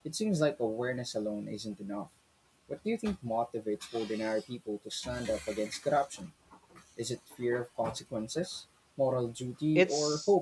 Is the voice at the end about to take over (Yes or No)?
Yes